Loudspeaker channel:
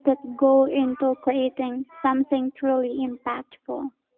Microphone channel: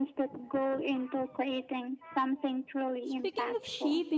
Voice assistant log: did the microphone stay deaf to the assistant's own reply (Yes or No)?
No